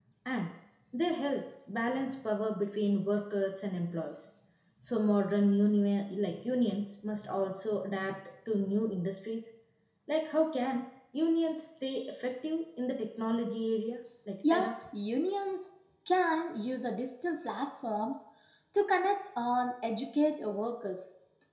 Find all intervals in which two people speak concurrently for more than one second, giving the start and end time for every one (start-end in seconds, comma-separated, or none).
none